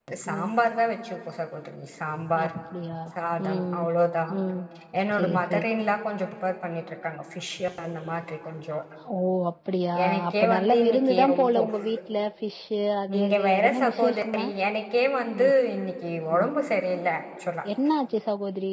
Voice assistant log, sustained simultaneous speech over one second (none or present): present